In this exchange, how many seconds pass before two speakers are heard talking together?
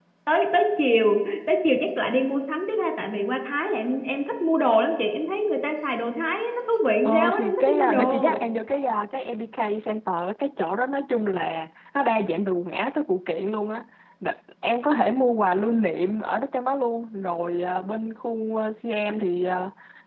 7 s

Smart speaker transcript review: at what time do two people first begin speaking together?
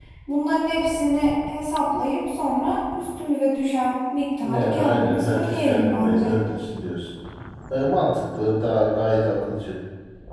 4 s

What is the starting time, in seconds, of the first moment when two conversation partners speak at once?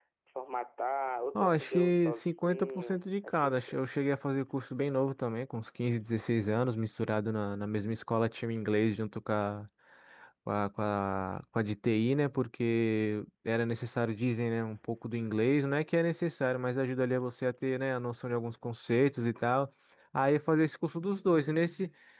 1 s

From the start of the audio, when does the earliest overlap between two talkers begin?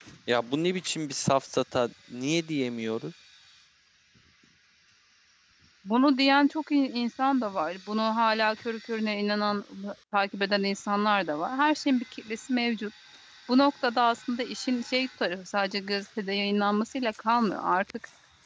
none

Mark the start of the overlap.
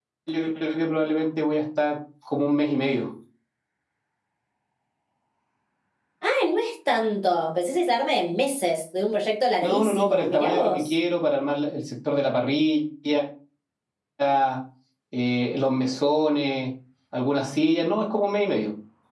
10 s

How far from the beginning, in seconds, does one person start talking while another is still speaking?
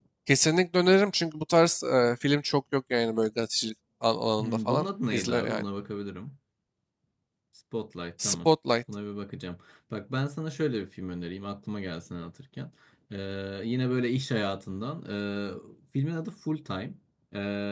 4 s

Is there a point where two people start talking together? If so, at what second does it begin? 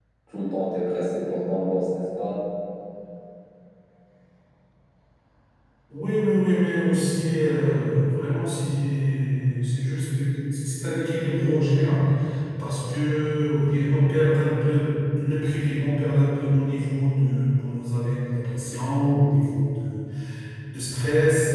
none

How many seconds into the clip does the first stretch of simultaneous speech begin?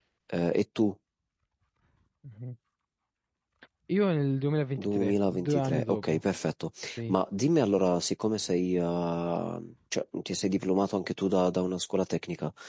5 s

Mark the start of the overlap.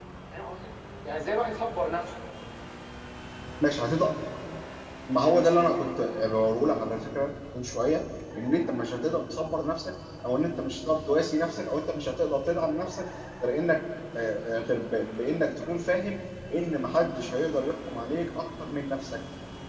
none

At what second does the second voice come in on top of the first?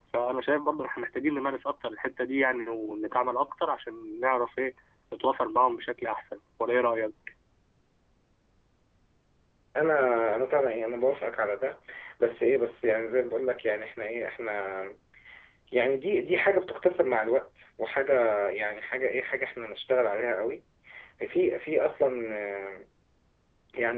none

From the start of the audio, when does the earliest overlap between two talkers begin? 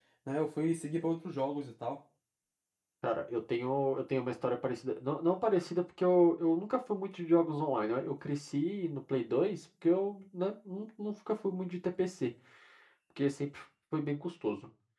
none

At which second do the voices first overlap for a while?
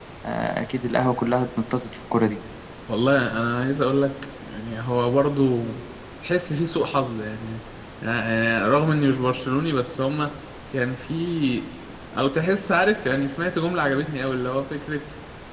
none

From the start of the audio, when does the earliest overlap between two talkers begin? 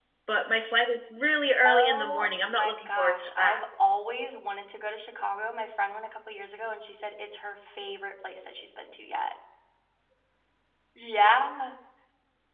2 s

